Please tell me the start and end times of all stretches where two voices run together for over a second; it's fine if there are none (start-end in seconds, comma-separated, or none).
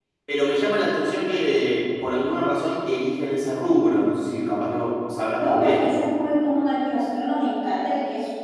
none